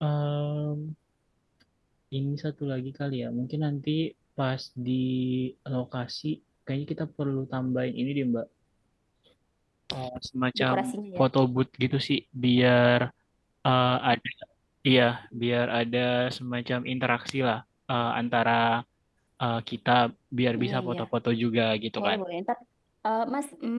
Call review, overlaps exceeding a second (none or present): none